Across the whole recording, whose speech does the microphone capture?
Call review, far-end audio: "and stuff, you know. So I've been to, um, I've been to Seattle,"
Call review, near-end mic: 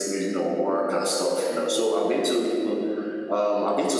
echo only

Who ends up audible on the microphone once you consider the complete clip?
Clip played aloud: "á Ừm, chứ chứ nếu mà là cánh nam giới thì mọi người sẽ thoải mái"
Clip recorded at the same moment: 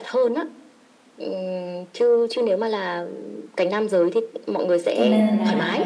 both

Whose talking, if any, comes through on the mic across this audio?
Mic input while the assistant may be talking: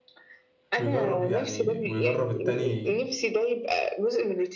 both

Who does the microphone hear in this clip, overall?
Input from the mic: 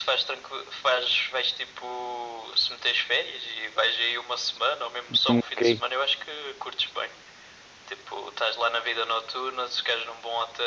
both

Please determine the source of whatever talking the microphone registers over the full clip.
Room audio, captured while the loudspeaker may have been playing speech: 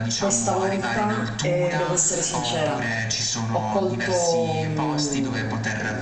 both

